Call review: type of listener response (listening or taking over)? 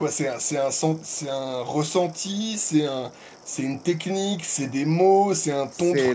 taking over